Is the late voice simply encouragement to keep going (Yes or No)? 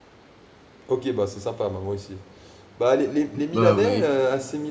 Yes